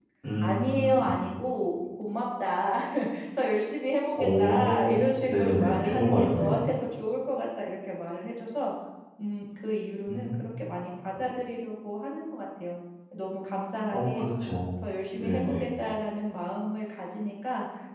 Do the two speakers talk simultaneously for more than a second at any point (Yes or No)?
Yes